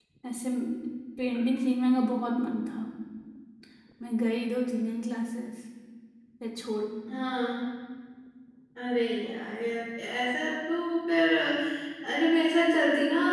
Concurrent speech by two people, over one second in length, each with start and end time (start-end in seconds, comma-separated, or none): none